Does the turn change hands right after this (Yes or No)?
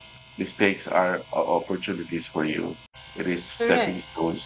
No